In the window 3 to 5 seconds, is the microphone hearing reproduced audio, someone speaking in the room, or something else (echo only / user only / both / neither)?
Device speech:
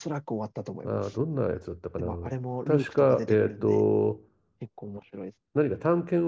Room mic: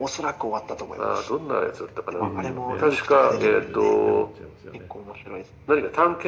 both